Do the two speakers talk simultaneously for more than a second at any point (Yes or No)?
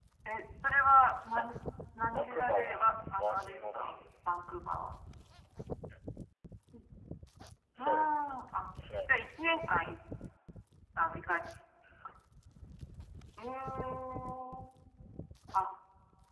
Yes